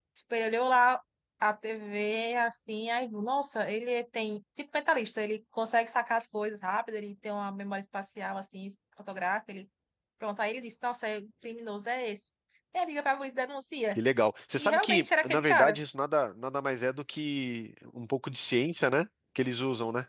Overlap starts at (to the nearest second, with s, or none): 15 s